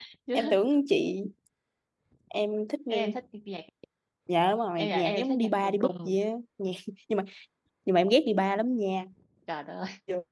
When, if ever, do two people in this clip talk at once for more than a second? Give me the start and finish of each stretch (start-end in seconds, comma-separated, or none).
4.8-6.2